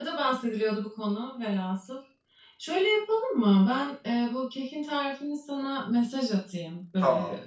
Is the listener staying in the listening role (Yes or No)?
Yes